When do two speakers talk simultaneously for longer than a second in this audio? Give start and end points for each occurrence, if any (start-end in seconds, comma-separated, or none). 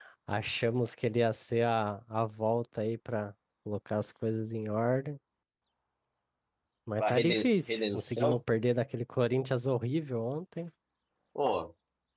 7.0-8.4